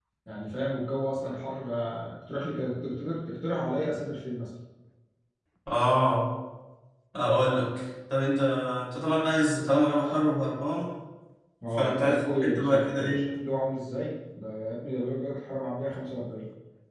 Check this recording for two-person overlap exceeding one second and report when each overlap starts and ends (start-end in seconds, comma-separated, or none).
11.7-13.3